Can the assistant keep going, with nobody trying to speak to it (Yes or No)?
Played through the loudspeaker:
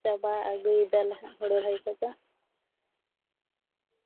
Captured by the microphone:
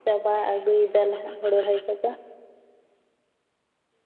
Yes